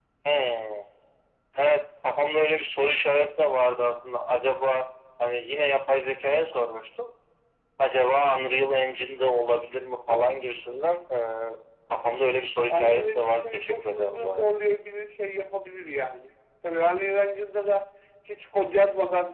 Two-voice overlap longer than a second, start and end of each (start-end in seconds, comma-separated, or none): 12.7-14.5